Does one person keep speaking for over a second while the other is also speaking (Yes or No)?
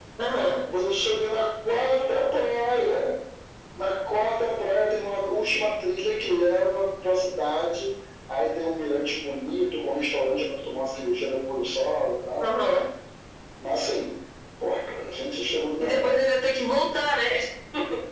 No